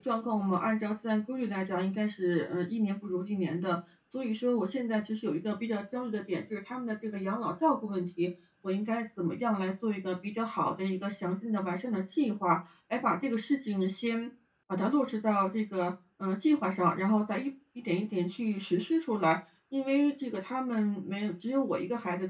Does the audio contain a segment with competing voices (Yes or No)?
No